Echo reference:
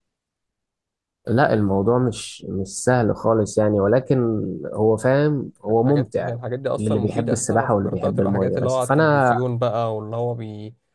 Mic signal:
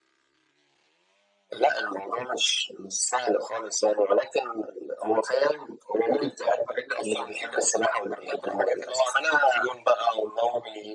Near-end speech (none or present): none